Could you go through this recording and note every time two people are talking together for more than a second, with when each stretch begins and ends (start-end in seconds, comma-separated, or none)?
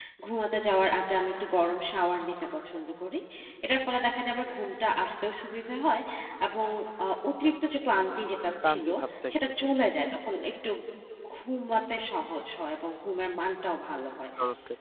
none